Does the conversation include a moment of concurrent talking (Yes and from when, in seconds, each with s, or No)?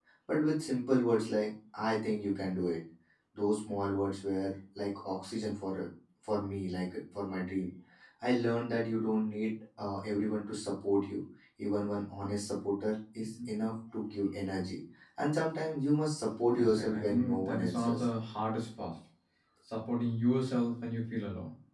Yes, from 16.5 s